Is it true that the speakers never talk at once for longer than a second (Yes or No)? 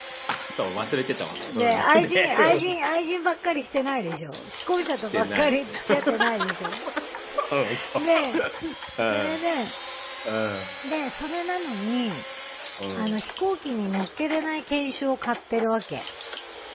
No